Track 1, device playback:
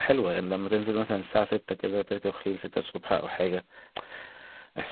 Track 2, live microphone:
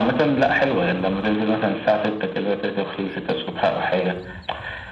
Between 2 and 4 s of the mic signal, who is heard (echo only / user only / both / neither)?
echo only